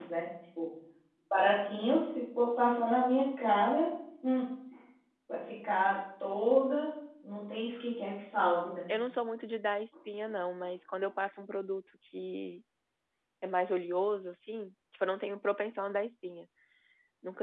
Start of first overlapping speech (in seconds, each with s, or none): none